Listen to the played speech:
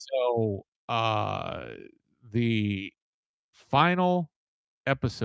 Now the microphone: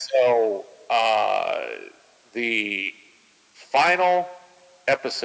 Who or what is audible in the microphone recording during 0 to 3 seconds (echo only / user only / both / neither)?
echo only